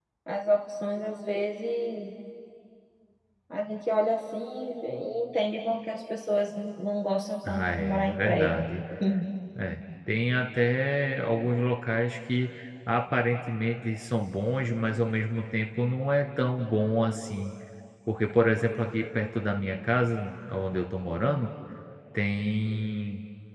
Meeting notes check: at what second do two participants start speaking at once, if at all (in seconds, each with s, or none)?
7.4 s